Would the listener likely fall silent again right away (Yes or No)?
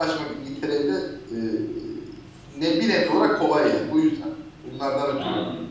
No